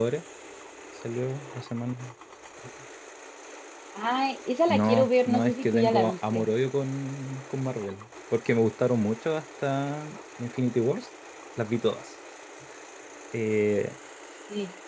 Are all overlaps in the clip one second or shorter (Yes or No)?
No